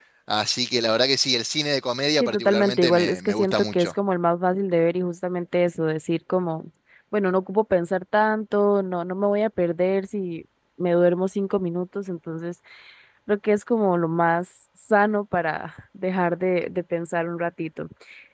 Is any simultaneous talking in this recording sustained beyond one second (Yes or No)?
Yes